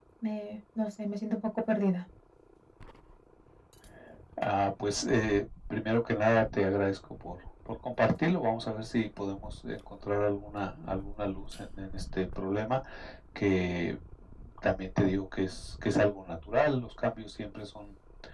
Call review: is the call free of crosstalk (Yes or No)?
Yes